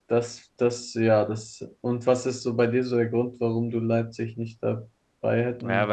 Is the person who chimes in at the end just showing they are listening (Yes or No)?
No